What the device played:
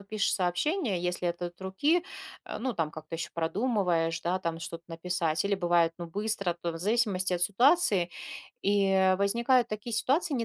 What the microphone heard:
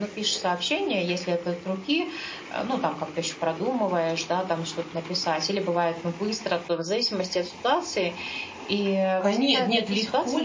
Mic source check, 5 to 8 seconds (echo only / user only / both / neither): echo only